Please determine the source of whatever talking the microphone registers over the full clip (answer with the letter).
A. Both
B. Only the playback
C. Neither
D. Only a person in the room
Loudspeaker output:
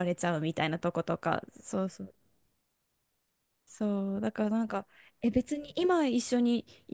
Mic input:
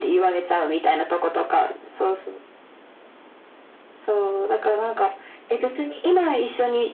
B